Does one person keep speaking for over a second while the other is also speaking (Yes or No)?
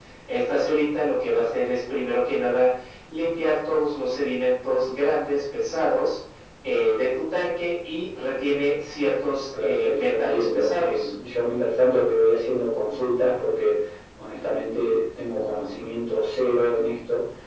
Yes